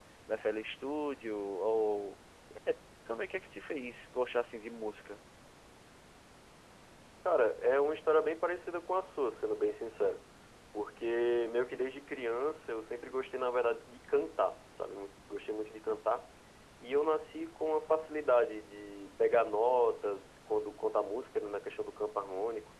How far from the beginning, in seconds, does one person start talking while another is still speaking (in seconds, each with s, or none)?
none